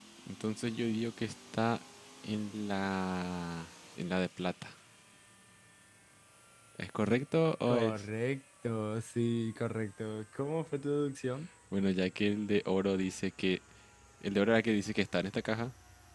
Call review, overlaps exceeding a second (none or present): none